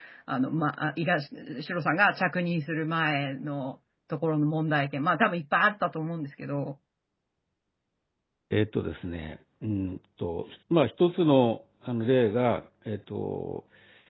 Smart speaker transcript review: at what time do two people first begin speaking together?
none

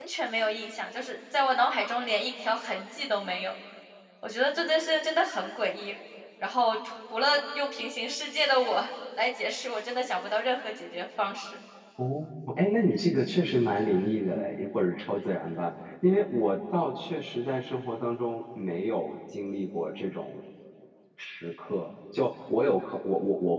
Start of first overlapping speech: none

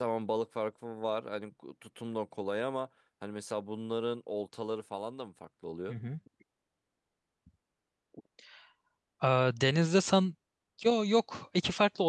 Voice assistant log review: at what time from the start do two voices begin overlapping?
none

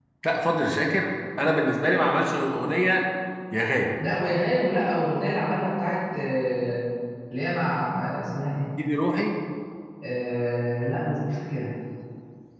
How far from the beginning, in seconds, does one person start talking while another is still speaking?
none

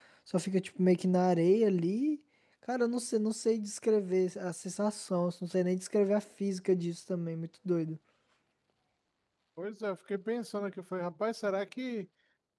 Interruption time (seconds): none

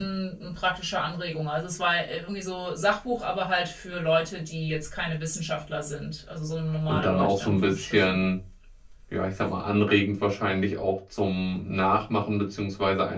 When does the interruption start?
7 s

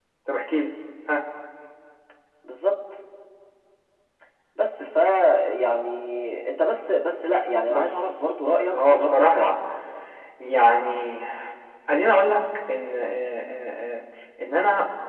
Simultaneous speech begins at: 8 s

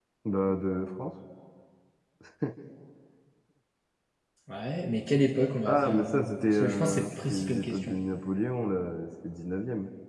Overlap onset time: 6 s

